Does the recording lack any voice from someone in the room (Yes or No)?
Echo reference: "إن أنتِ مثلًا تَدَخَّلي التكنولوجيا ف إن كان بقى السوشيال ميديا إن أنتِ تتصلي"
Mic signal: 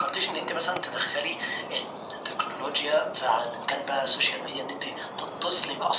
Yes